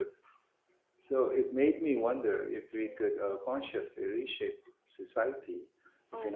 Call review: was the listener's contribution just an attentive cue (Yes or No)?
No